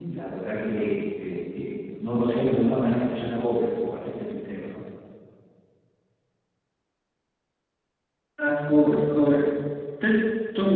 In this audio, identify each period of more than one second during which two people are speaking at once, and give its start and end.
none

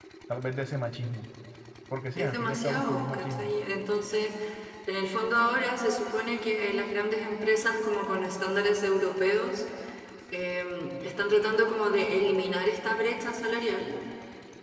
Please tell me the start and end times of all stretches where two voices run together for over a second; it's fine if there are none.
2.2-3.5

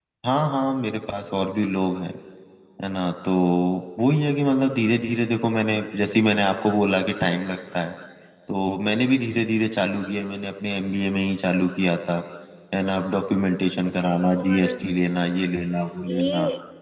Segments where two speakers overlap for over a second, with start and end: none

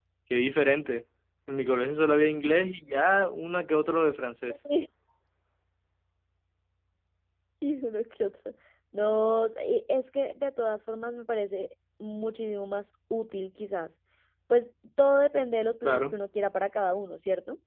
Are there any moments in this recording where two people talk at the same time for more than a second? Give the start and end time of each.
none

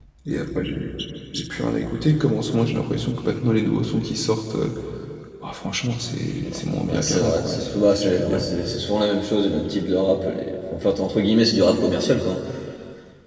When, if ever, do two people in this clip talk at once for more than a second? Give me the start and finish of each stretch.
6.8-8.4

